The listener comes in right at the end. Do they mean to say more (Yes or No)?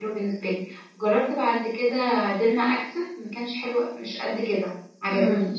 Yes